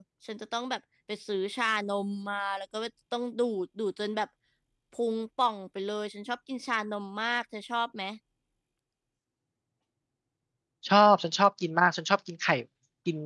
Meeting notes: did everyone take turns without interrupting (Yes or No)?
Yes